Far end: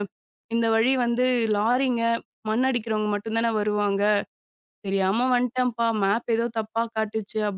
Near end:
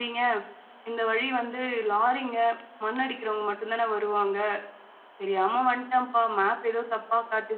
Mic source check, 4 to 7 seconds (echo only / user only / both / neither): echo only